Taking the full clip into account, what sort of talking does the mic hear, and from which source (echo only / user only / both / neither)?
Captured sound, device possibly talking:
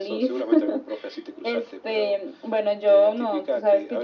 echo only